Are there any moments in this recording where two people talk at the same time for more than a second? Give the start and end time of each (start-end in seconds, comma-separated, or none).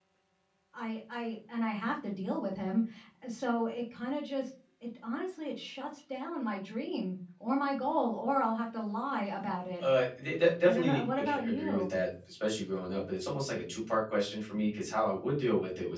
10.6-11.9